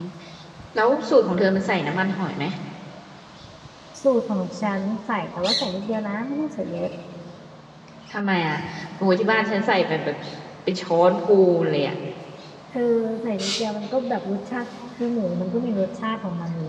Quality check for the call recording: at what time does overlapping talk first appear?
none

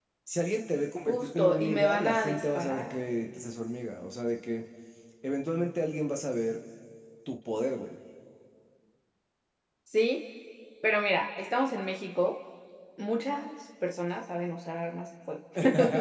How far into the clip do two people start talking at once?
1.1 s

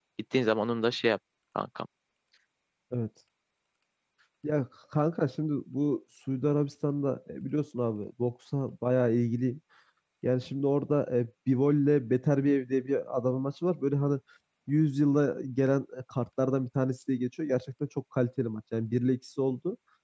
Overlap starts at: none

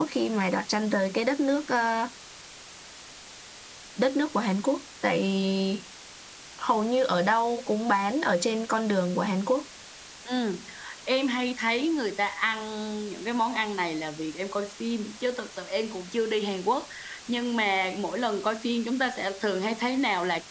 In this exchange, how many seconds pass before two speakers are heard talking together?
none

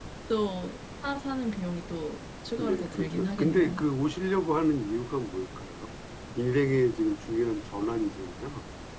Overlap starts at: 2.6 s

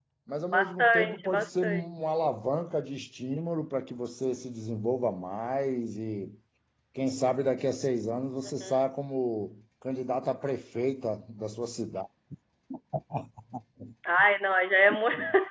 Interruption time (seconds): 0.5 s

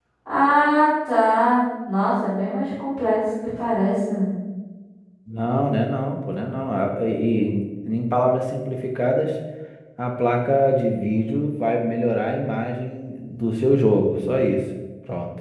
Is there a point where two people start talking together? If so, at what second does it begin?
none

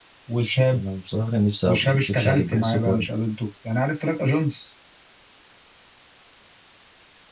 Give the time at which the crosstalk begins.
1.6 s

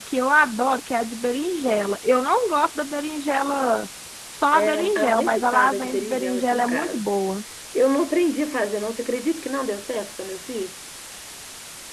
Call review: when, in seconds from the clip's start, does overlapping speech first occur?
4.5 s

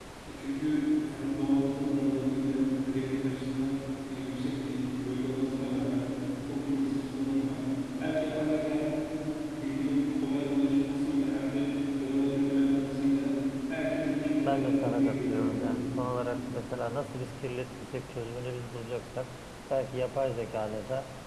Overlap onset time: 14.4 s

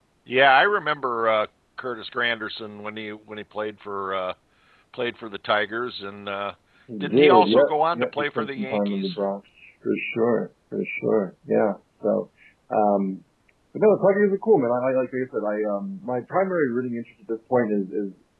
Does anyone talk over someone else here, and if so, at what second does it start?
7.0 s

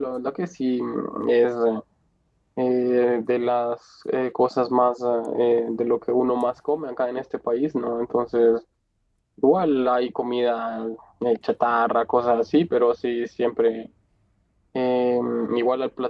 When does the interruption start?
none

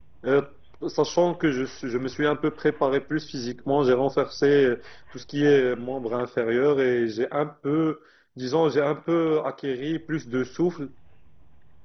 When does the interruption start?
none

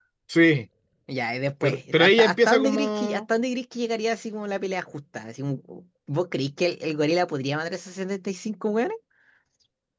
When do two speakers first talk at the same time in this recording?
1.6 s

